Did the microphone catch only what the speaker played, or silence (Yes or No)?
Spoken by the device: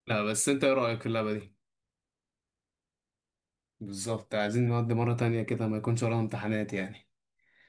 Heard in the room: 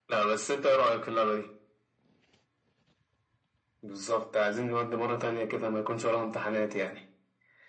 Yes